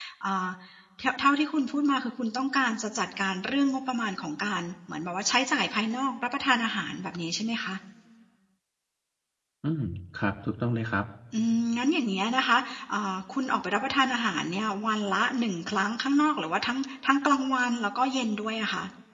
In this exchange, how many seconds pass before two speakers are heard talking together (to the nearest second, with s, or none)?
none